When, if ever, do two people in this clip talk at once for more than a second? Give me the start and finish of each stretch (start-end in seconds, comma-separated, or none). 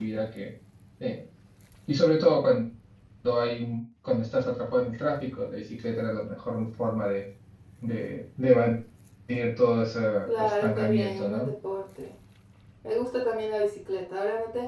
10.3-11.5